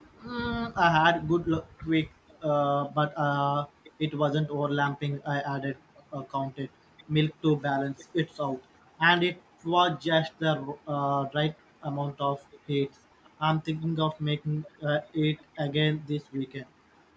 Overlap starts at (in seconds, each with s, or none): none